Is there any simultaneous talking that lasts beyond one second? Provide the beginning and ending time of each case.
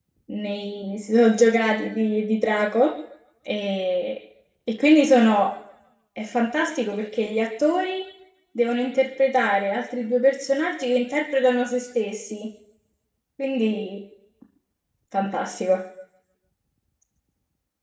none

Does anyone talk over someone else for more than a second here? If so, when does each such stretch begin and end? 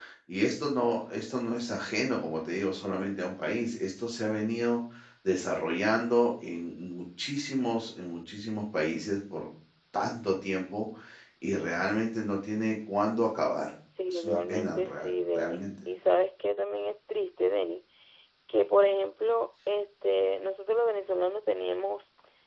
14.1-15.7

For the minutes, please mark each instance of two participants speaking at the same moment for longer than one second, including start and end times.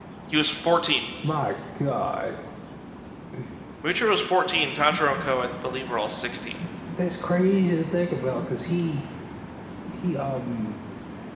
none

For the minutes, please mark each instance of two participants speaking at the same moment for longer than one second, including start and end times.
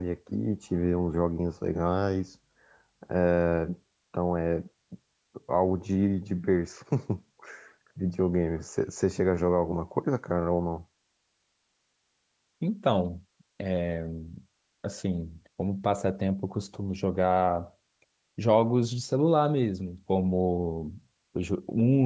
none

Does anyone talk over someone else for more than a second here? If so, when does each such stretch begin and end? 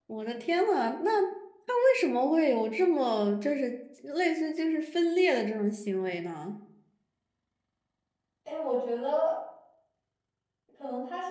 none

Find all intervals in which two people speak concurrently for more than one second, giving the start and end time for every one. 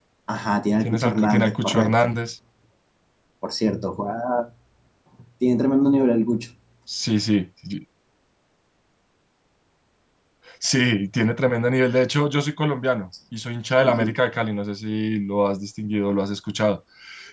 0.8-2.1

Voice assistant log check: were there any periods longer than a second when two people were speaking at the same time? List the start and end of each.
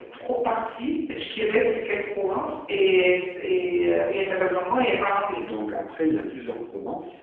none

